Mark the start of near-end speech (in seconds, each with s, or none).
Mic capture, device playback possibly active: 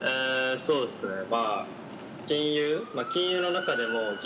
none